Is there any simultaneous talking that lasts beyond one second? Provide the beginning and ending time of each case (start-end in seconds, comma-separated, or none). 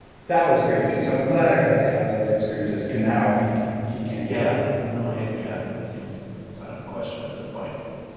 none